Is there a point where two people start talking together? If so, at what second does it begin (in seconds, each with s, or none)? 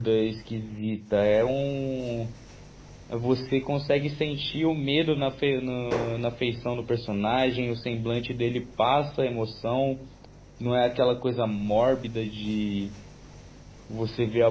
none